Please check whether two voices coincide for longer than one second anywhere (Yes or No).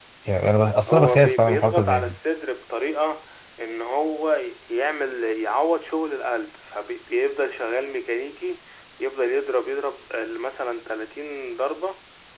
Yes